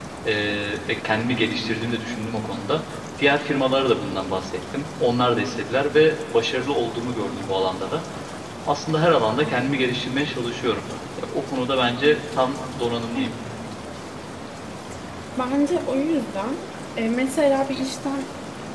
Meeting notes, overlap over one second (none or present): none